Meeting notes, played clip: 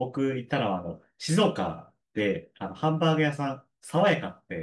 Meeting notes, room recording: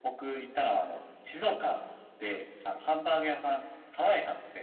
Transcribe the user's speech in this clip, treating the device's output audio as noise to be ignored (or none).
none